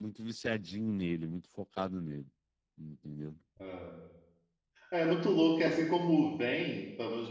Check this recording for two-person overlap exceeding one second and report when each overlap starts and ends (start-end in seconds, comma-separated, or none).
none